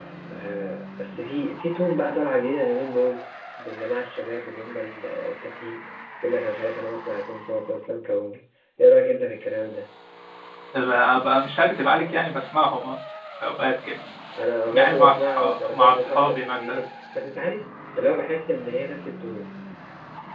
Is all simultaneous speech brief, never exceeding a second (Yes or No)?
No